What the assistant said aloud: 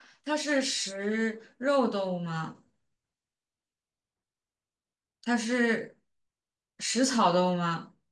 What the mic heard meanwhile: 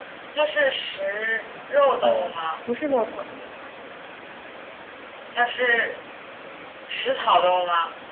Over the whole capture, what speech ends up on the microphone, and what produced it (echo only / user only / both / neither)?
both